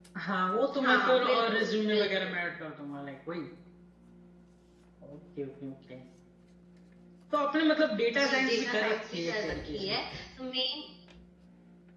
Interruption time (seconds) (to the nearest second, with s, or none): 1 s